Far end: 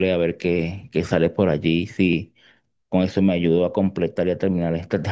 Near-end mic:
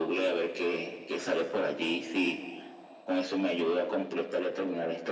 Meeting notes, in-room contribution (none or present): none